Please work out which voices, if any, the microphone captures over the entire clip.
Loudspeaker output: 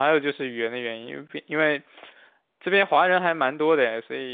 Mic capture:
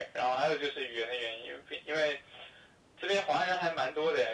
echo only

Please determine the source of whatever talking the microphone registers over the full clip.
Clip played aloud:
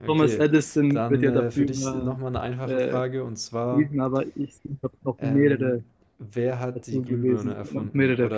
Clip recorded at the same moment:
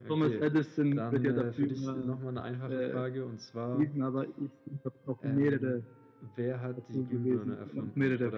echo only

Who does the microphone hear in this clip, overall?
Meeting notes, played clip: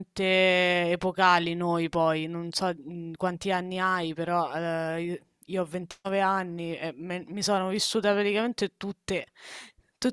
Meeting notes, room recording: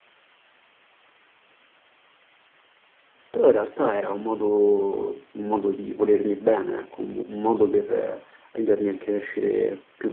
user only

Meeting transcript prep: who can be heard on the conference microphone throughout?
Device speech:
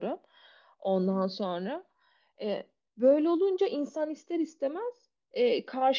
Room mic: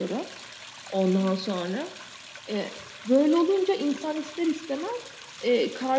echo only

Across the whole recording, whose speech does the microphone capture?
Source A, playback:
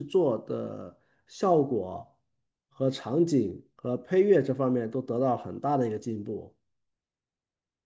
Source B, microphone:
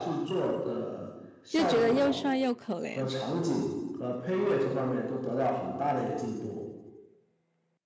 both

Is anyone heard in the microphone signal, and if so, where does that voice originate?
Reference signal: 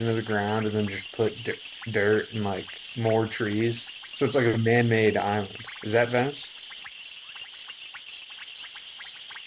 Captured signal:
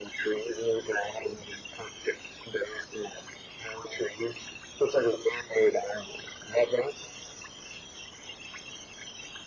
echo only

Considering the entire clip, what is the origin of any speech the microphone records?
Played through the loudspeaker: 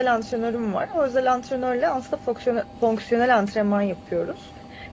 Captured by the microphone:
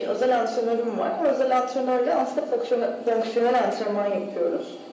echo only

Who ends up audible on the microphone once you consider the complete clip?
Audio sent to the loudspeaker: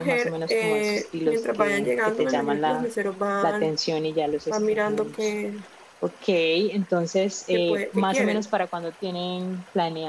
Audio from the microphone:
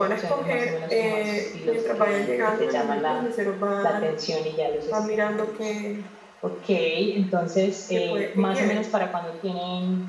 echo only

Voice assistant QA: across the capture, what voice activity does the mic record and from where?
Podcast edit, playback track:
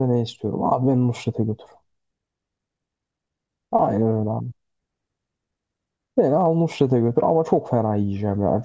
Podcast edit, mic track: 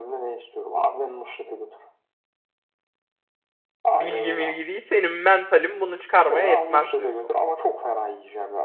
both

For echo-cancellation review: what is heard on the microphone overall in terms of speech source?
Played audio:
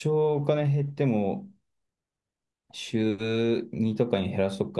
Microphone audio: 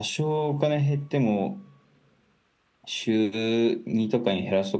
echo only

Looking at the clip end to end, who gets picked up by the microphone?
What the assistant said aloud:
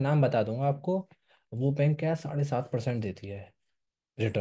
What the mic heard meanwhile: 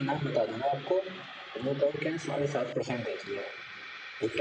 echo only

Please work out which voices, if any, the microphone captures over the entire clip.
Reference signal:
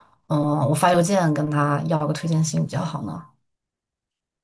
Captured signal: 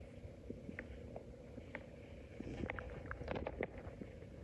neither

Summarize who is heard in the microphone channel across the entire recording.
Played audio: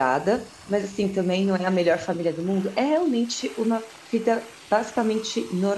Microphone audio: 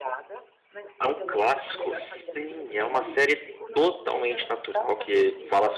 both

